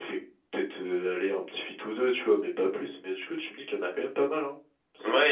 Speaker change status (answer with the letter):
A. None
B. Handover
B